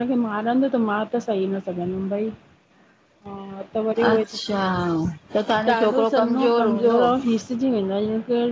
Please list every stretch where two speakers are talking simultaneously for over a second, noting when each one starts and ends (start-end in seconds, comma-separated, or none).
5.7-7.0